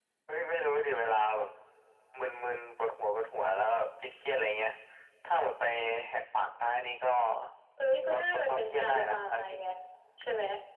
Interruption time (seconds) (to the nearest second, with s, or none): 8 s